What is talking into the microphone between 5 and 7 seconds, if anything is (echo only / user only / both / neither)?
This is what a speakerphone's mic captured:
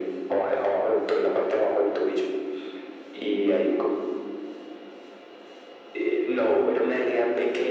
echo only